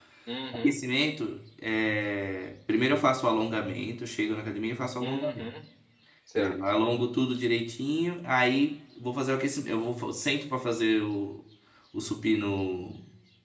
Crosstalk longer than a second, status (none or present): none